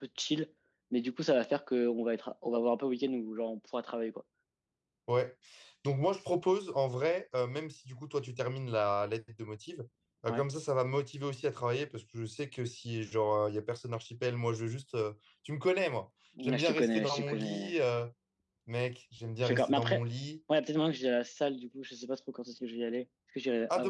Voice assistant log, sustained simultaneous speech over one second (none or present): present